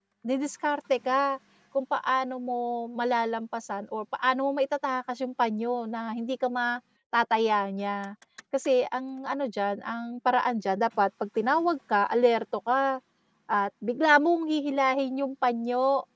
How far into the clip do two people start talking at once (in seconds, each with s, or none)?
none